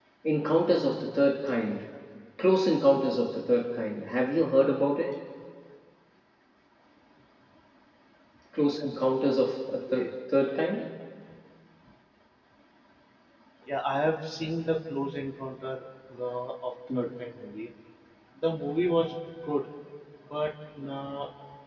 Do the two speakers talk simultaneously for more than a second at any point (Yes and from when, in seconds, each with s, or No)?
No